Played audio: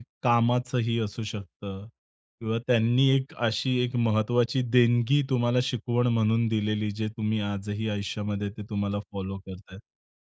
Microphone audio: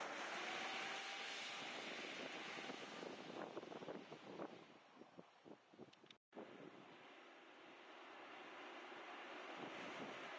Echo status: none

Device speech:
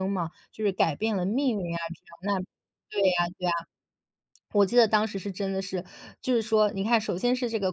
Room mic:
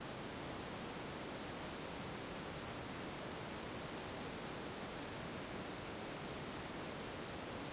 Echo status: none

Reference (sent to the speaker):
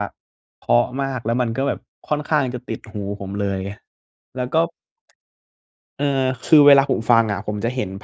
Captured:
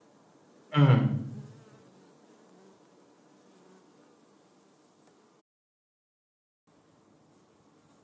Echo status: none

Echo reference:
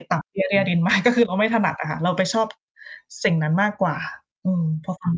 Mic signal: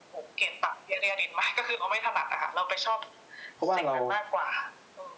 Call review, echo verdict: present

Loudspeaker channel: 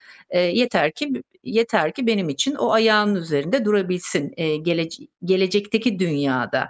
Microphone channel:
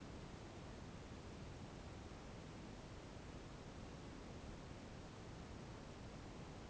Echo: none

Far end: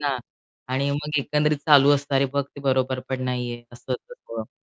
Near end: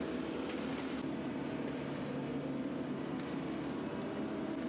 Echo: none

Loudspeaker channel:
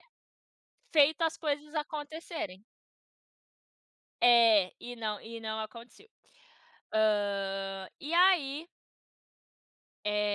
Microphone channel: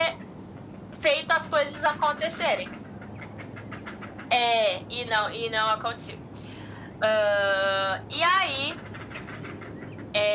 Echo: present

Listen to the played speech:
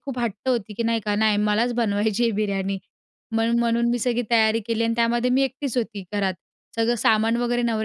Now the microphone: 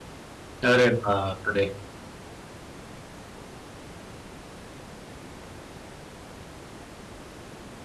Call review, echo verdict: none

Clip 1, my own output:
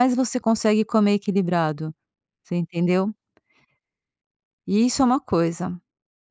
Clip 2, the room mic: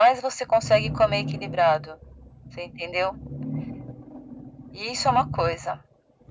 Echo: present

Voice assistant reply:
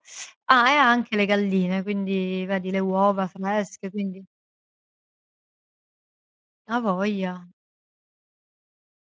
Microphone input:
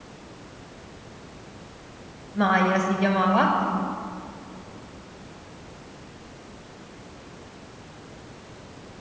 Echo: none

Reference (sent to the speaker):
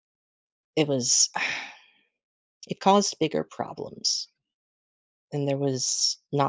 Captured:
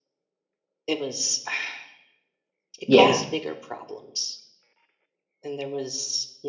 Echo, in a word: present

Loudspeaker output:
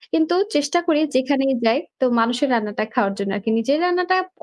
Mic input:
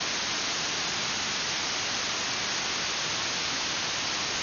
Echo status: none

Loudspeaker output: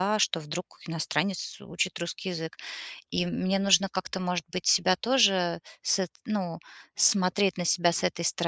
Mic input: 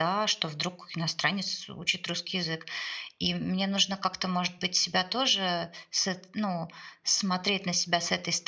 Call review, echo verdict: present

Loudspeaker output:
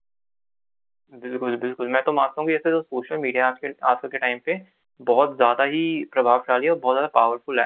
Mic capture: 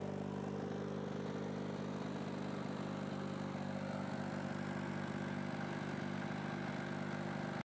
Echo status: none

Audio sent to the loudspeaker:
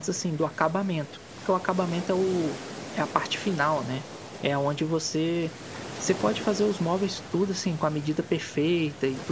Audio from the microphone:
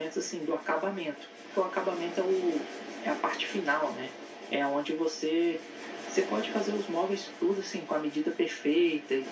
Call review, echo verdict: present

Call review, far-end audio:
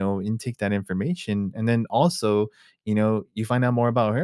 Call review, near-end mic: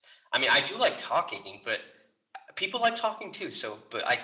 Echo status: none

